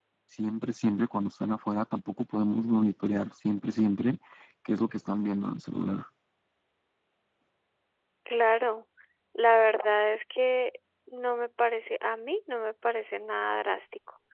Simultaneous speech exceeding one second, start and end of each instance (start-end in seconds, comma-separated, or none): none